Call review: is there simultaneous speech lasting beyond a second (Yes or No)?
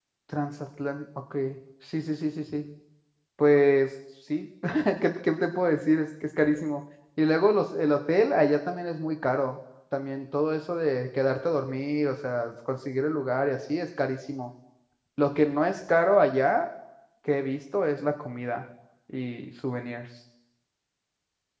No